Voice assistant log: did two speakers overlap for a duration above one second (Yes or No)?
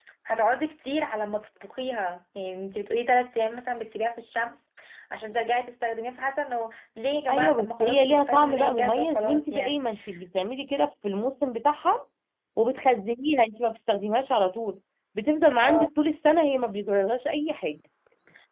Yes